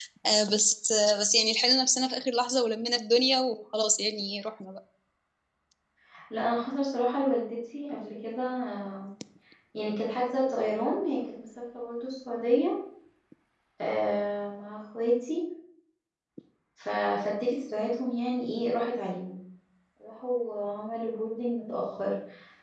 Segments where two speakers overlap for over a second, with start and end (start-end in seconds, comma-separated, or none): none